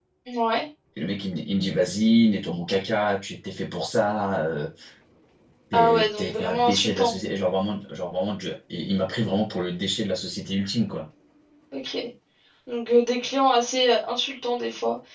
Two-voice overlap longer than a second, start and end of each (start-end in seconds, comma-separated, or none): 5.7-7.2